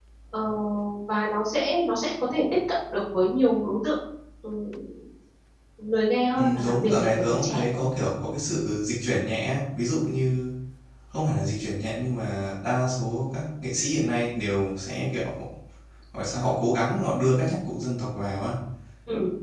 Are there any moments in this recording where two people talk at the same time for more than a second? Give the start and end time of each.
6.4-7.8

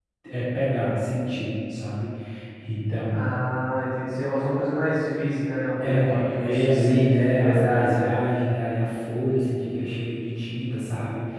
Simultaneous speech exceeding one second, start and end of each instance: 5.8-8.2

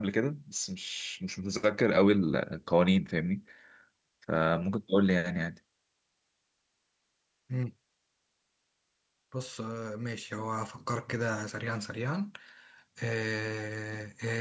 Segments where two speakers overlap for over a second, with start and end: none

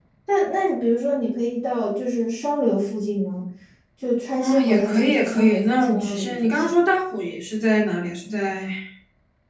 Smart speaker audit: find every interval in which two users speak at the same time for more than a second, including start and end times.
4.4-6.7

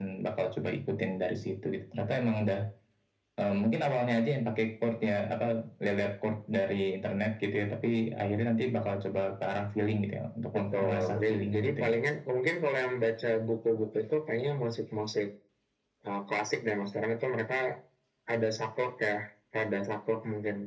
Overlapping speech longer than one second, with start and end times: 10.6-12.0

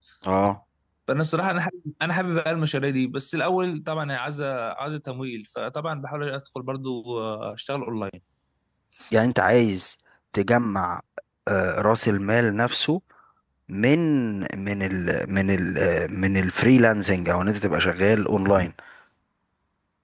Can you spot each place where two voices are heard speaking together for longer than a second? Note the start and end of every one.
none

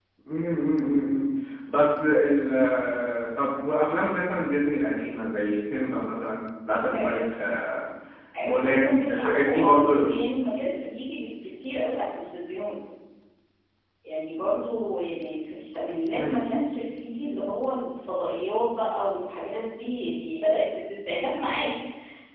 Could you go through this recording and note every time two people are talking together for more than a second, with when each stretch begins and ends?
8.4-10.2

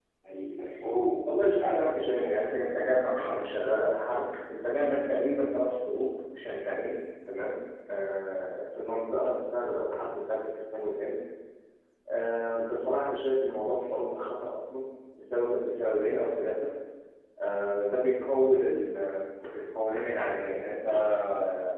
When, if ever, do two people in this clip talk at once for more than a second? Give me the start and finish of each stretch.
1.2-2.8

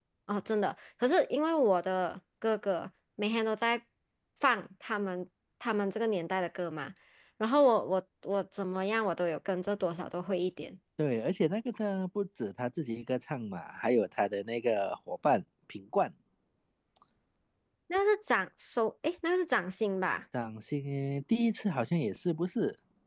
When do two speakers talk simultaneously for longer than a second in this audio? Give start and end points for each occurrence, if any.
none

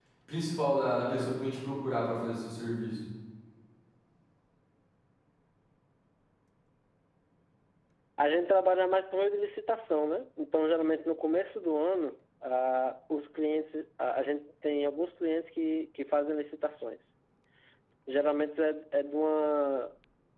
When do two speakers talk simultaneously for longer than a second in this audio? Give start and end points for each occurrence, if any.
none

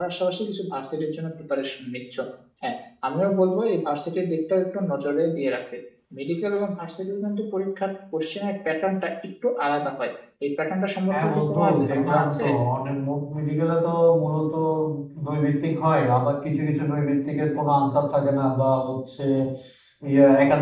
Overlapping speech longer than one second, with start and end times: 11.1-12.4

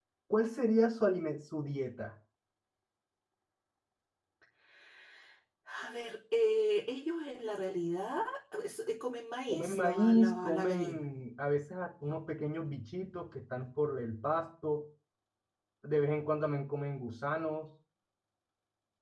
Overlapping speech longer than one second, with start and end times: 9.5-11.1

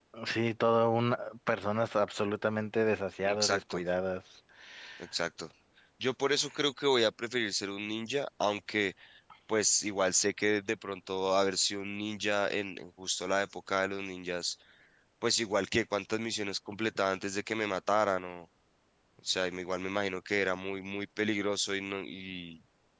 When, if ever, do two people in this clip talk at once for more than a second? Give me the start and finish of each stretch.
none

